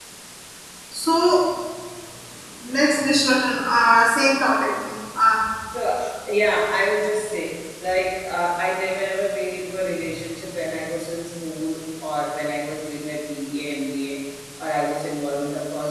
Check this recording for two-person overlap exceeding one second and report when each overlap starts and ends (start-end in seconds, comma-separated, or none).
none